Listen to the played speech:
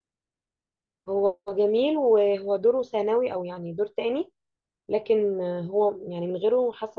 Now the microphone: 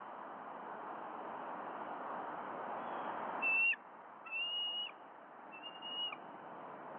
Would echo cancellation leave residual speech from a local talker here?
No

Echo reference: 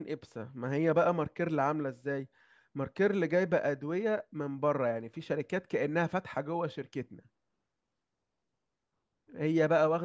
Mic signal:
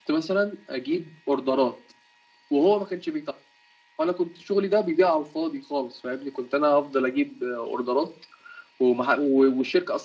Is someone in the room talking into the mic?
Yes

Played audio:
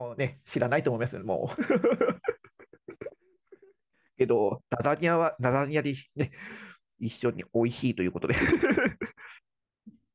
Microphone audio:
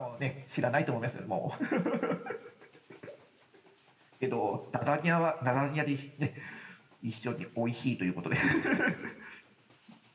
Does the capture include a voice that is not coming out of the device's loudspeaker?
No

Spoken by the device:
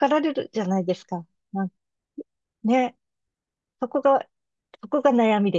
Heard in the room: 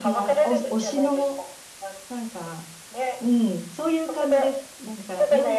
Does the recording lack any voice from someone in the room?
No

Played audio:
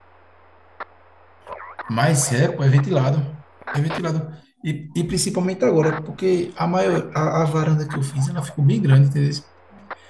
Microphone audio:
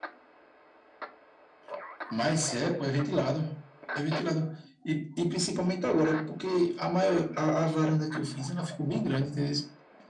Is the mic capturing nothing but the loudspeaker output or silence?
Yes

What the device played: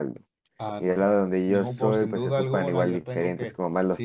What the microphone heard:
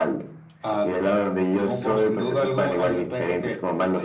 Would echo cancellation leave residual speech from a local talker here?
No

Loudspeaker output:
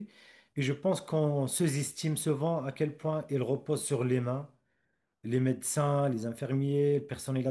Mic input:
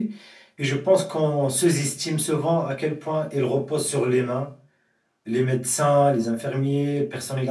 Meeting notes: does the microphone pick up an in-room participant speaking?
No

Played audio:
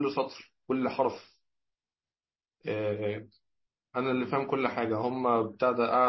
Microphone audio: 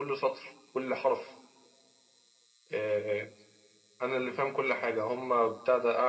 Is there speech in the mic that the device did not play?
No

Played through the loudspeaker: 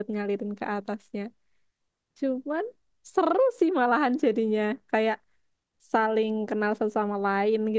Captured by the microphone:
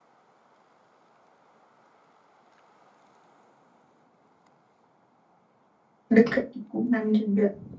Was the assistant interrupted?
Yes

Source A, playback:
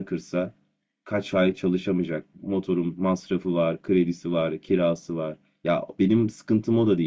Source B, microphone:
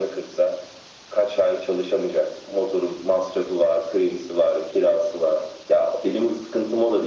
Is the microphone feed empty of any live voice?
Yes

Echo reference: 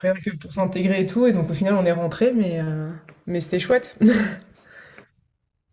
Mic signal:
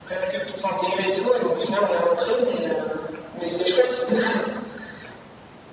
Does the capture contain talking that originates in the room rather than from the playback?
No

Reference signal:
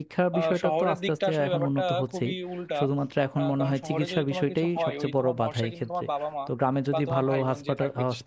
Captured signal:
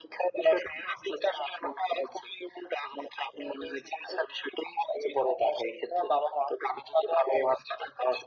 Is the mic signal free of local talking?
Yes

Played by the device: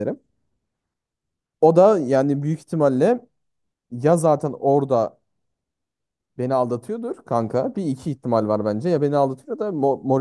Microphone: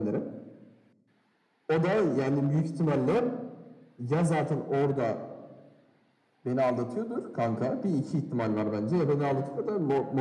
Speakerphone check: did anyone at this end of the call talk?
No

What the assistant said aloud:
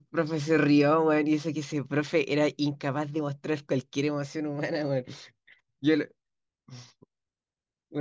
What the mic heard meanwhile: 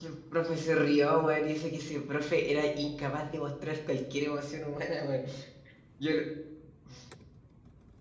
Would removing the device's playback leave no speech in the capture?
Yes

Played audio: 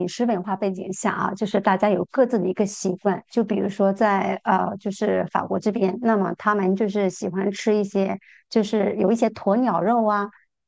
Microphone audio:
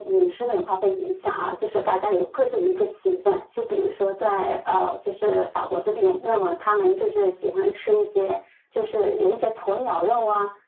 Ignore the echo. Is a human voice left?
No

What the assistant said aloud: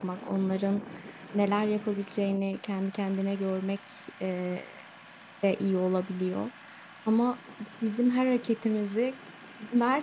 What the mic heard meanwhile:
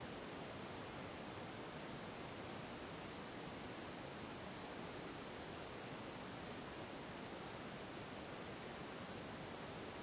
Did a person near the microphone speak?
No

